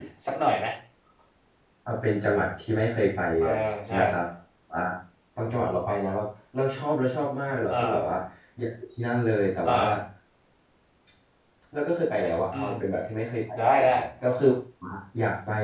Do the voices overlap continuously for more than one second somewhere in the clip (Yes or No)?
No